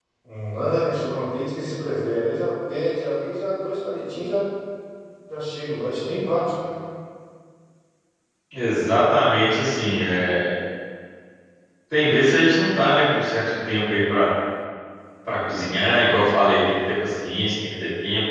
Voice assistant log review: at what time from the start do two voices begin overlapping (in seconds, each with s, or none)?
none